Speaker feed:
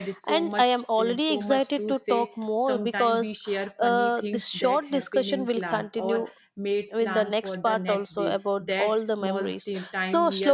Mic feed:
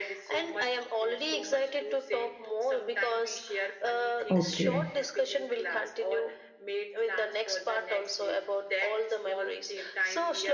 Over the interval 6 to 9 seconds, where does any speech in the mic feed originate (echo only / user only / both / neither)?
echo only